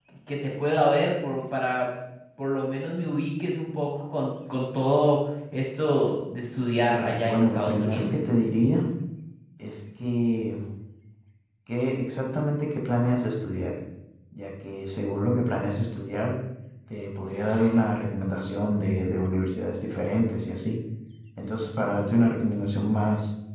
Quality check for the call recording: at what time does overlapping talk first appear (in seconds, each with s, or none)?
6.8 s